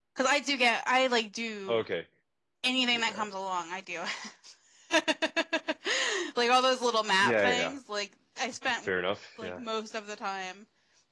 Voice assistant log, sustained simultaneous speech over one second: none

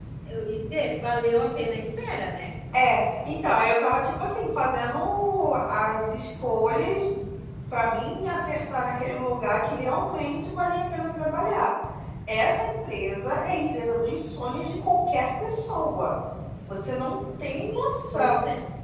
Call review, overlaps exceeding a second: none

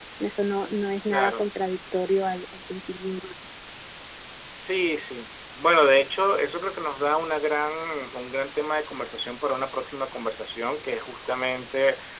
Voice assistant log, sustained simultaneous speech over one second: none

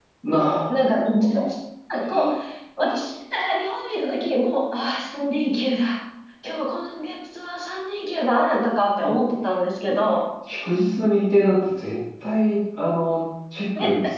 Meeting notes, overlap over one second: none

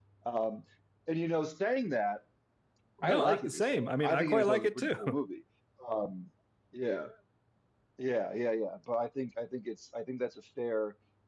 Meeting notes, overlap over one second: present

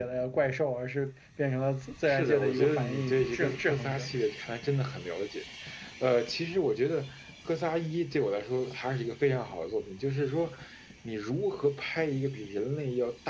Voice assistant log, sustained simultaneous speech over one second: present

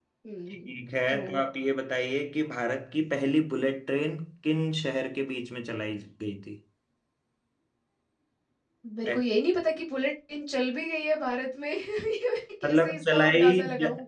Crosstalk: present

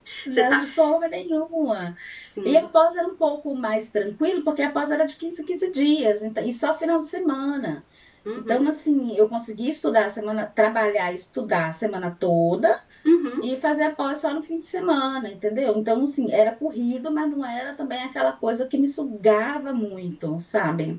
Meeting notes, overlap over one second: none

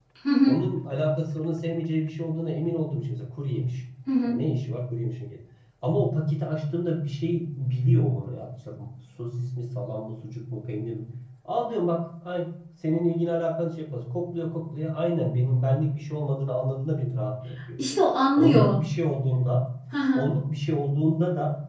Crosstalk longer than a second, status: none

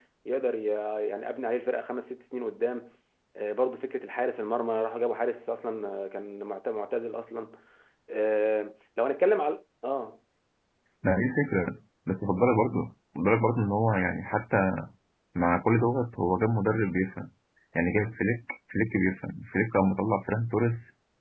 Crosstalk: none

